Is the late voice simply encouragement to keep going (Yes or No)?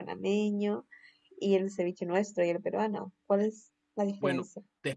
No